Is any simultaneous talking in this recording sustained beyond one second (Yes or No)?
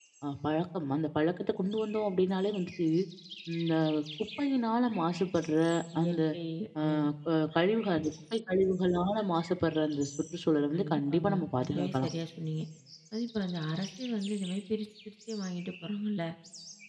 Yes